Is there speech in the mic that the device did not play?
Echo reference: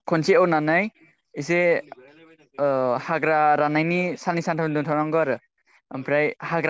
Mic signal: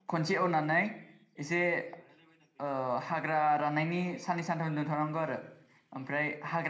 No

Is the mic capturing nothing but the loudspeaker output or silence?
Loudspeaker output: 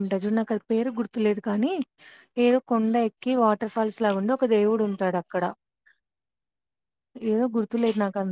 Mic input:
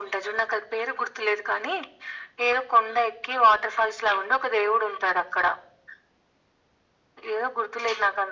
Yes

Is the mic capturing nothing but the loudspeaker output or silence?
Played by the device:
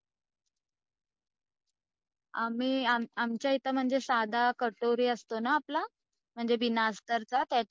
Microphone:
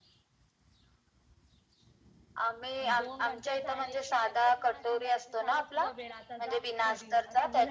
No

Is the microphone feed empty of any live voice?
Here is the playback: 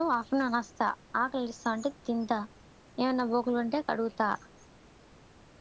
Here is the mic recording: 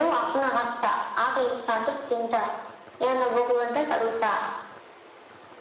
Yes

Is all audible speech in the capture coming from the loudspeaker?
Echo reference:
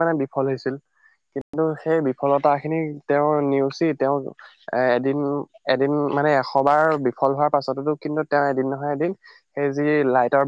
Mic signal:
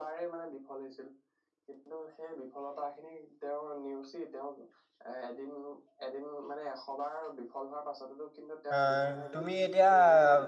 No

